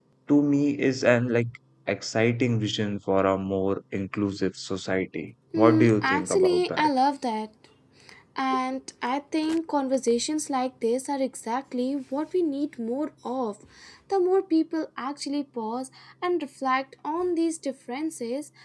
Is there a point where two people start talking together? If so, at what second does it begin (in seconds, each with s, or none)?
5.5 s